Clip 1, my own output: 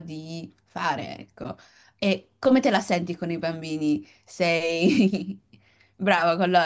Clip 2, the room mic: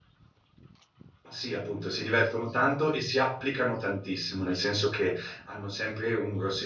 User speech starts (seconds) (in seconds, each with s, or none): 1.3 s